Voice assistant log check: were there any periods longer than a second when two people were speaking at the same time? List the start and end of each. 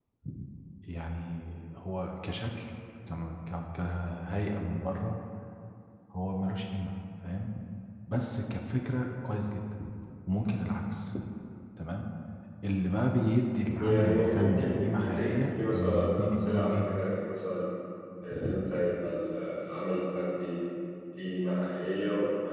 13.8-16.9

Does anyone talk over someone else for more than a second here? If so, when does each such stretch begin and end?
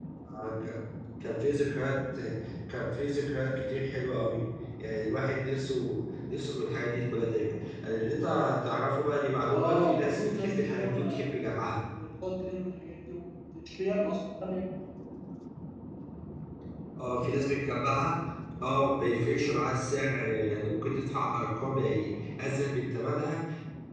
9.5-11.3

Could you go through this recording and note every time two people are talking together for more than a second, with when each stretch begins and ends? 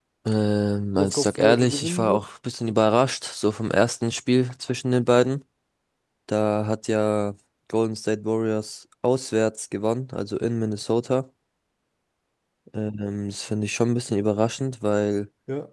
0.9-2.2

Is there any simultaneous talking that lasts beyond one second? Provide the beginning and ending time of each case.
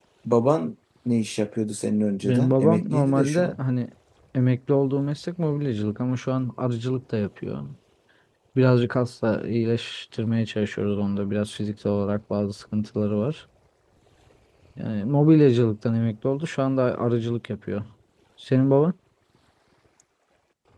2.2-3.6

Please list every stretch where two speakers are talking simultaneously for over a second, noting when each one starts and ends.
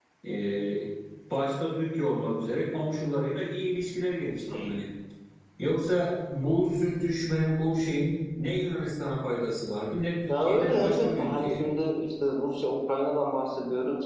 10.3-11.6

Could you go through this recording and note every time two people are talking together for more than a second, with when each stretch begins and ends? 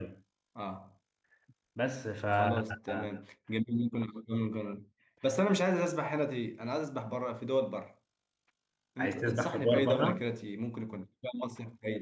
9.0-10.2

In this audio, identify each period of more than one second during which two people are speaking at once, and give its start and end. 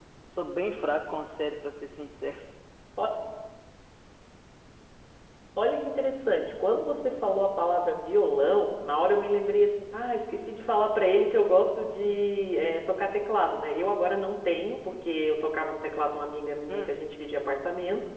none

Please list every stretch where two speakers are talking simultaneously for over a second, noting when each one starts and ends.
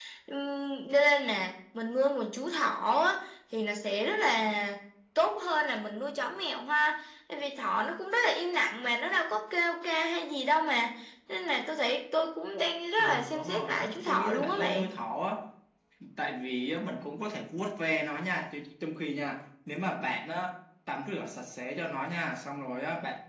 13.0-14.9

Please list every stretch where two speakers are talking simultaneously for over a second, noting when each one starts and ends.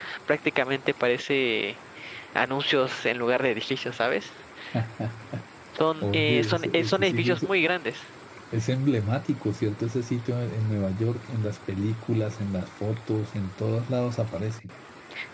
6.0-7.4

